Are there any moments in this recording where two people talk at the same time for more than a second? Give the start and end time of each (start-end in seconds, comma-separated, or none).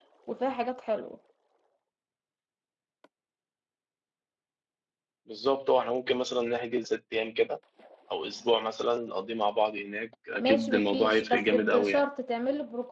10.4-12.1